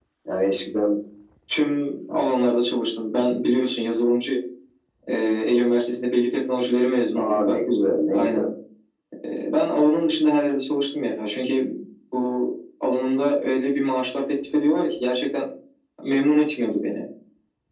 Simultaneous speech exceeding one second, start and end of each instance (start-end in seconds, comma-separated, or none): none